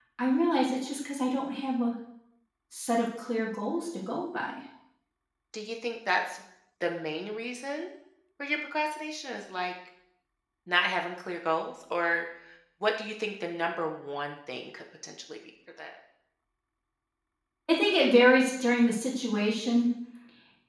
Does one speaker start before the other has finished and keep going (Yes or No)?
No